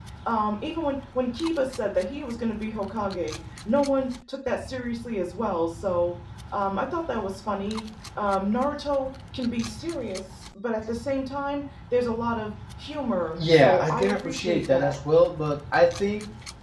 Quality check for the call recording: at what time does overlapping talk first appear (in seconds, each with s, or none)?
13.4 s